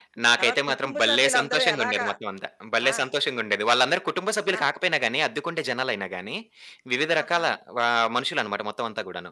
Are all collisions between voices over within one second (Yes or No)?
No